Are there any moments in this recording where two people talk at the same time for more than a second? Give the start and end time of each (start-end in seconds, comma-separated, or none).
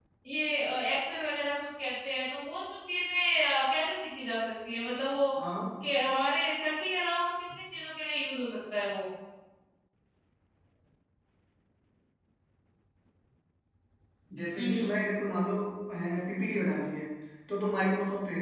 none